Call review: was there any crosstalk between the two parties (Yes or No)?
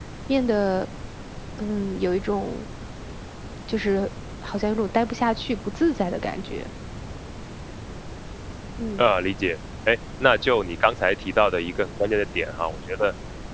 No